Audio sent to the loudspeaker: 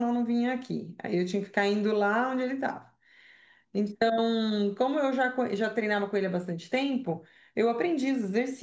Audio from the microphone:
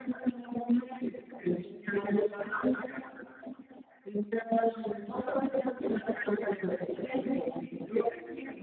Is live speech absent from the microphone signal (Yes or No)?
Yes